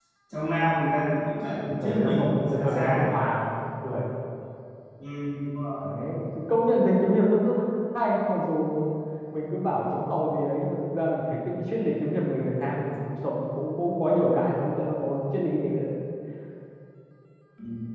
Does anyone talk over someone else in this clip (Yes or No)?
Yes